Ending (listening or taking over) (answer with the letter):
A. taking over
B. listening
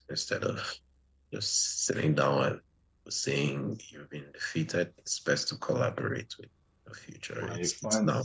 A